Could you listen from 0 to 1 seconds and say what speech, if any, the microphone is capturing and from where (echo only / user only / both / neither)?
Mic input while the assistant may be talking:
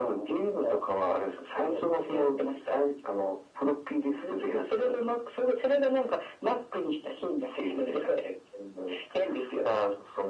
echo only